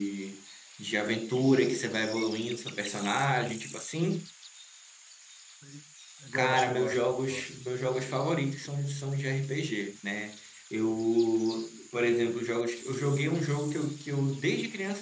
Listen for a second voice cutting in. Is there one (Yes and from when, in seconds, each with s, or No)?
Yes, from 6.3 s